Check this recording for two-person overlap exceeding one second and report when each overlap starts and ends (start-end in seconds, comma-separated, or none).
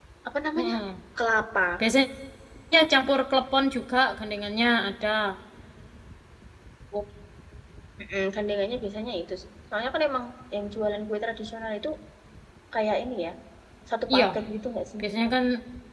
none